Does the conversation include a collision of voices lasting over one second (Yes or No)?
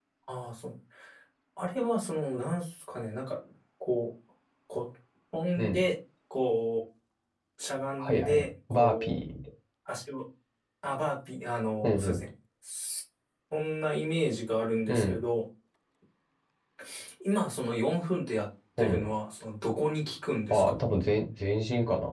Yes